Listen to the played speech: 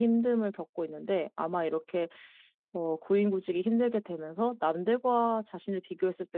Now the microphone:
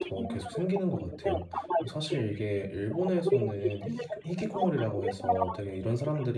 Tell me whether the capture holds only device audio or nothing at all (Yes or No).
No